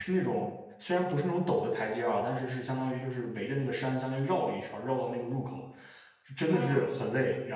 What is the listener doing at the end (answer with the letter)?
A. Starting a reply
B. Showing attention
B